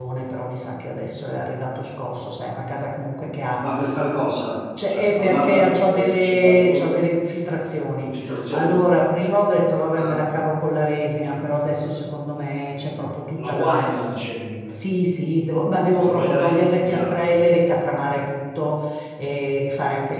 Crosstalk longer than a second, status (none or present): present